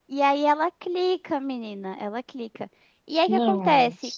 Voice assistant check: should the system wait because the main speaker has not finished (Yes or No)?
Yes